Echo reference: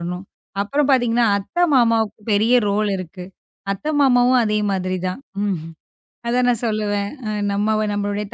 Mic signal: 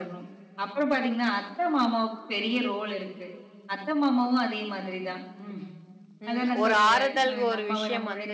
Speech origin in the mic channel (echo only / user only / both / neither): both